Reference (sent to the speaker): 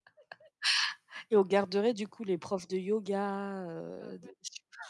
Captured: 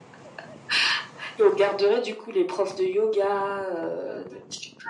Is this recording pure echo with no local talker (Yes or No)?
Yes